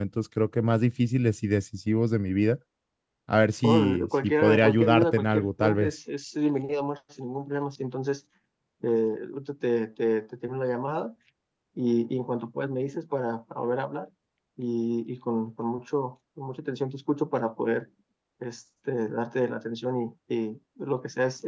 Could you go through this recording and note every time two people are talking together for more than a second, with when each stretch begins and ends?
3.6-6.0

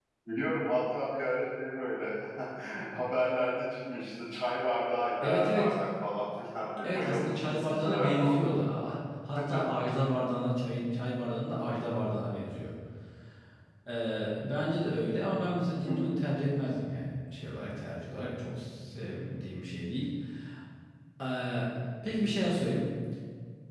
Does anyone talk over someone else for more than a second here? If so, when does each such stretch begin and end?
6.8-8.5

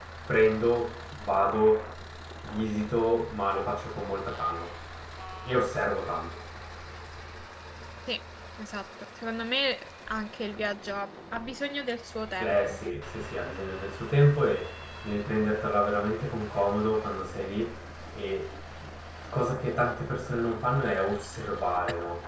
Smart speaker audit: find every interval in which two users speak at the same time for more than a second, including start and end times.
none

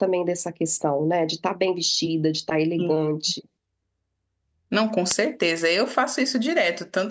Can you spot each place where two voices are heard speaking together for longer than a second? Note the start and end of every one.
none

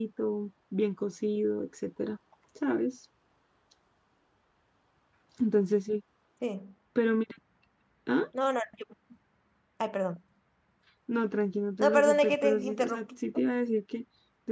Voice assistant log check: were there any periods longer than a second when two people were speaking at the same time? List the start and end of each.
11.8-13.1

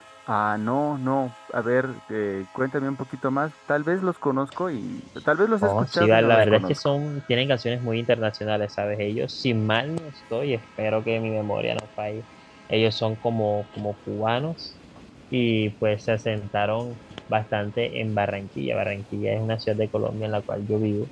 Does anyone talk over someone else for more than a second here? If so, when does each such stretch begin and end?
5.6-6.9

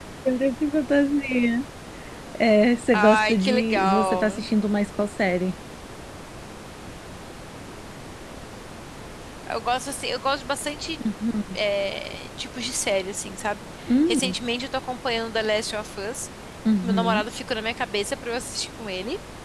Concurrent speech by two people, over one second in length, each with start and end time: 2.9-4.5

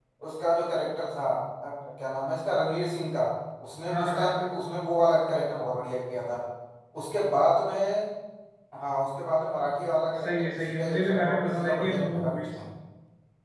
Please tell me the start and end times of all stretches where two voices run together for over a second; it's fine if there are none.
10.2-12.4

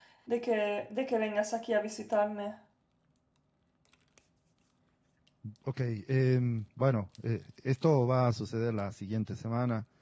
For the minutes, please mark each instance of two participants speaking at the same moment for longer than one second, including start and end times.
none

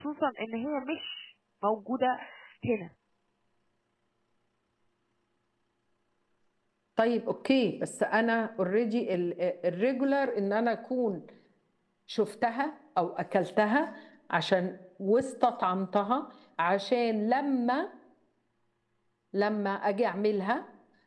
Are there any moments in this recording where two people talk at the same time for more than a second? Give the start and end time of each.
none

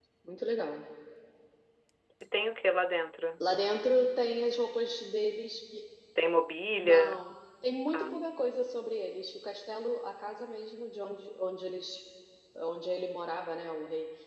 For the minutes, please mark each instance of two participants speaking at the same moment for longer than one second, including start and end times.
none

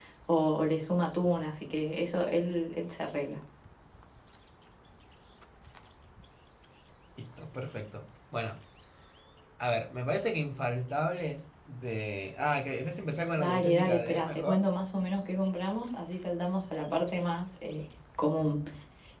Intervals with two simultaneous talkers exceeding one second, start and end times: 13.4-14.6

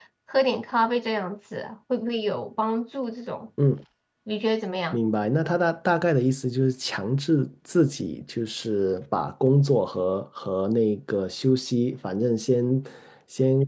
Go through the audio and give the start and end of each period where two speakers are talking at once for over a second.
none

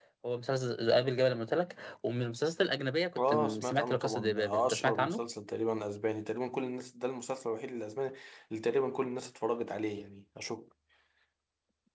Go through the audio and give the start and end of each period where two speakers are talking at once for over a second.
3.2-5.2

